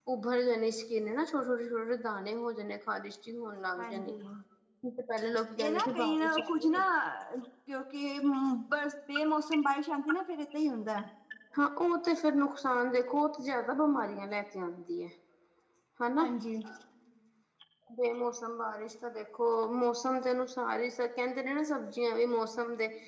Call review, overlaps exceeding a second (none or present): present